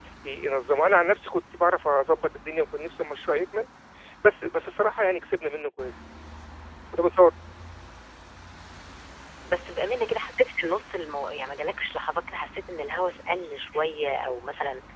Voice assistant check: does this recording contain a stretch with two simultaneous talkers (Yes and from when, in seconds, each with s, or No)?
No